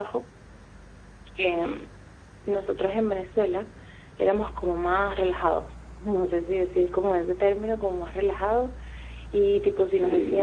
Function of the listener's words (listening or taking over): listening